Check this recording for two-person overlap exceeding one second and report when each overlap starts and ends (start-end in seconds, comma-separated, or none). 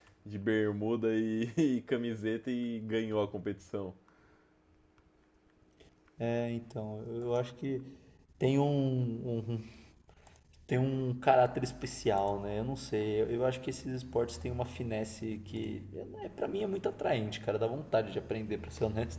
none